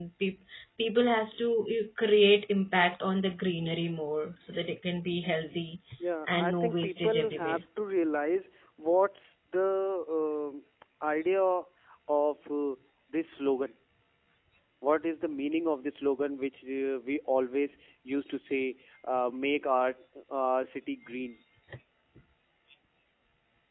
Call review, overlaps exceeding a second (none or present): present